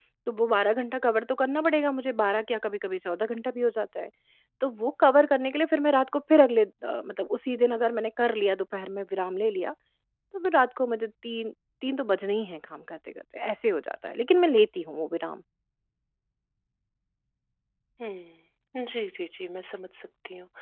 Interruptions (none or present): none